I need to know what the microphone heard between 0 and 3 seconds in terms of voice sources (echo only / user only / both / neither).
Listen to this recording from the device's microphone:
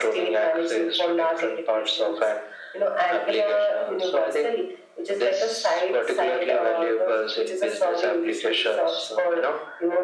echo only